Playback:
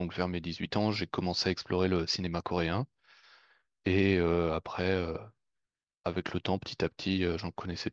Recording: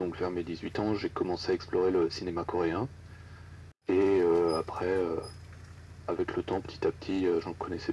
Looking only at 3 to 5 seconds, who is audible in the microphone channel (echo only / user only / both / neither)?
echo only